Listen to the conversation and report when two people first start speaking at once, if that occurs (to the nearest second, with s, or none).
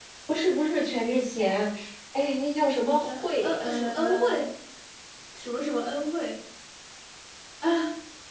3 s